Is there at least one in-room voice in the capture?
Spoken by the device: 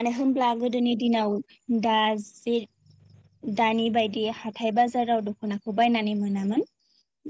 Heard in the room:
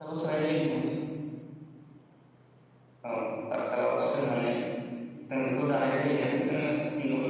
Yes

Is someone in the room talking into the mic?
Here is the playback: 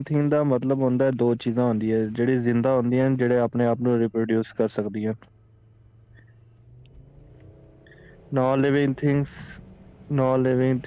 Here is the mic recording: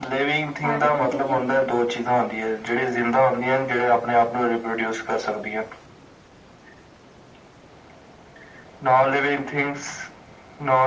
Yes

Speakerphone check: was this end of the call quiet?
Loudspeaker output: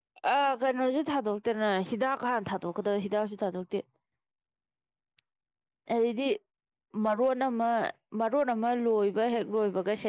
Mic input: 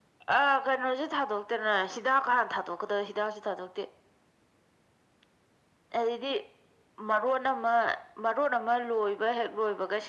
Yes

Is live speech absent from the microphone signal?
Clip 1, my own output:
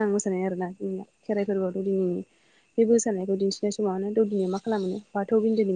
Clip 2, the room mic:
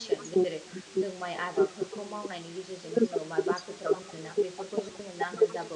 No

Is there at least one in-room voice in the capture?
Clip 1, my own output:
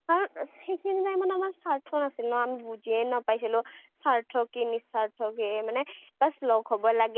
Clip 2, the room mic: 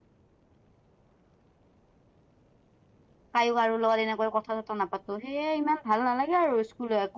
Yes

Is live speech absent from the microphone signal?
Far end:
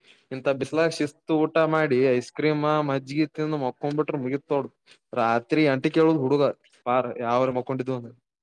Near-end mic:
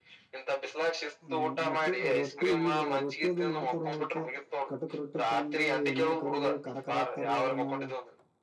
No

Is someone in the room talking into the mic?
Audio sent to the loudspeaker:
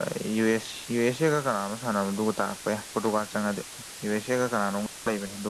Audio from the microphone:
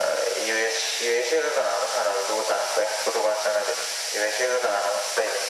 No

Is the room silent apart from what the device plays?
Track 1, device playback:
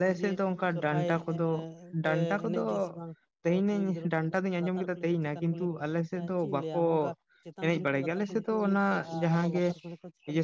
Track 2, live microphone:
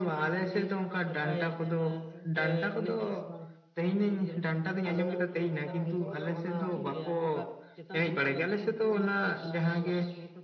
No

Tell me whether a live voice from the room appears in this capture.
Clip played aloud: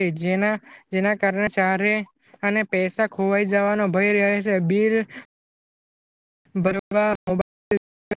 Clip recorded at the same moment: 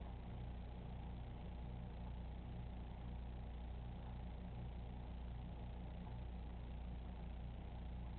No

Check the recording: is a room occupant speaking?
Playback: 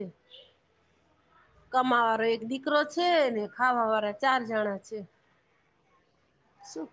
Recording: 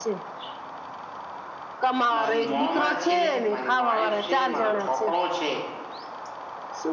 Yes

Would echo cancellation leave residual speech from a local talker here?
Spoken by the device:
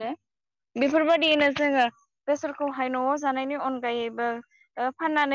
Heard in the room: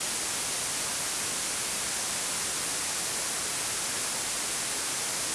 No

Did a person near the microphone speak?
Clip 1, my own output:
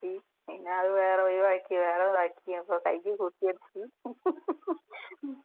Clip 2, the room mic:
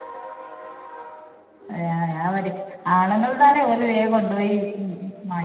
Yes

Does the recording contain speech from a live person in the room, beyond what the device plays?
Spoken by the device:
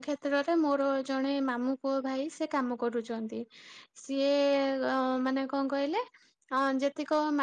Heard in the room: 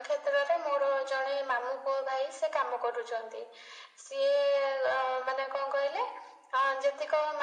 No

